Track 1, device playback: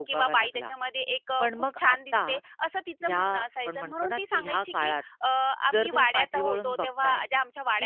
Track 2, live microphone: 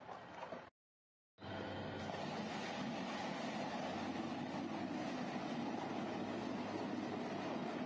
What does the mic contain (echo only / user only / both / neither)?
neither